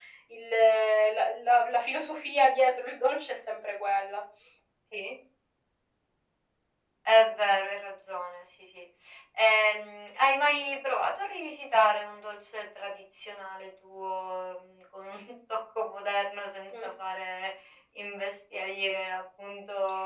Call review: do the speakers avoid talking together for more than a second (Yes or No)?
Yes